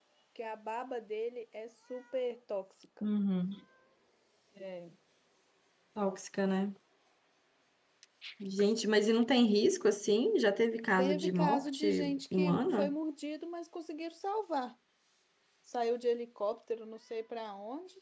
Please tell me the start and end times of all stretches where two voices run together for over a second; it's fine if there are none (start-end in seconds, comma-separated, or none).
11.0-12.9